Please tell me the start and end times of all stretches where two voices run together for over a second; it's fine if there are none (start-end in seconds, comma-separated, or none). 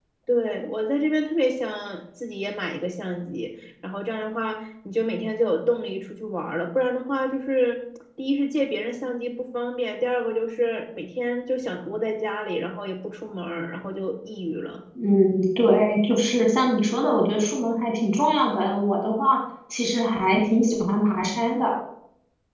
none